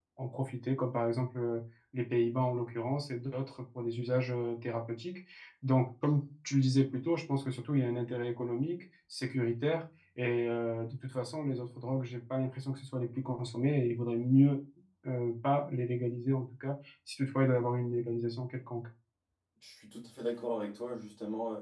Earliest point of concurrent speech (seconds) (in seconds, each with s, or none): none